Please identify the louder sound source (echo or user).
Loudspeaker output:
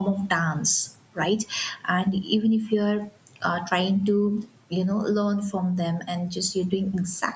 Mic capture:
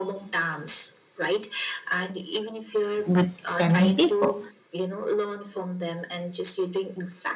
user